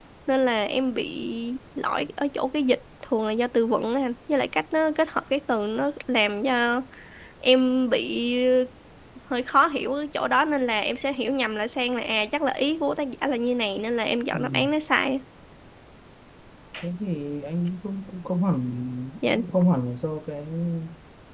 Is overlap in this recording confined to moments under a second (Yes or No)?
Yes